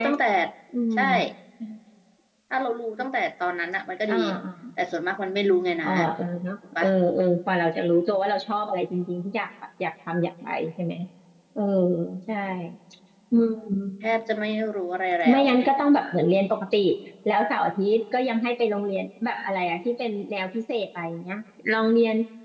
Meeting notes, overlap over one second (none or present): none